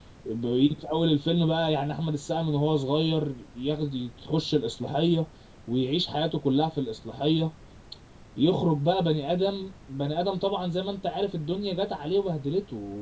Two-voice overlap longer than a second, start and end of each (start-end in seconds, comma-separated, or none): none